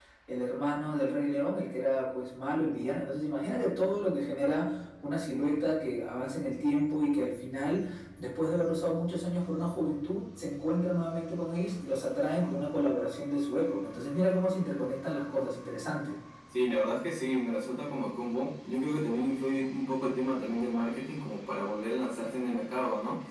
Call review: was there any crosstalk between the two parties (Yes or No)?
No